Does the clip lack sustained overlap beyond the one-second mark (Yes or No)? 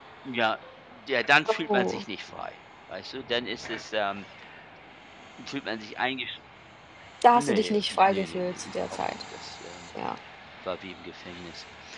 No